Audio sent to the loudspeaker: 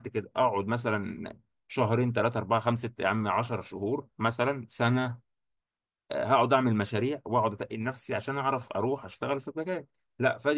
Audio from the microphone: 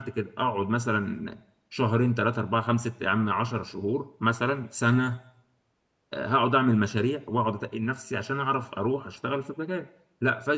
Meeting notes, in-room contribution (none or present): none